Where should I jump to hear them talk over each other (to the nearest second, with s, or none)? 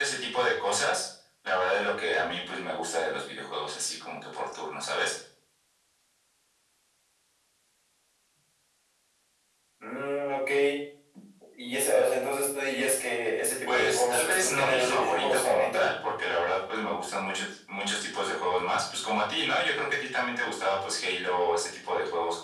14 s